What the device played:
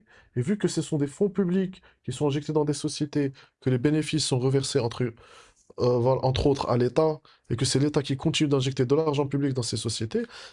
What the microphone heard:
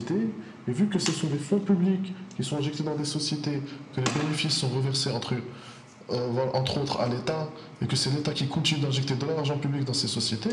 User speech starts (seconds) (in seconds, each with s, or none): none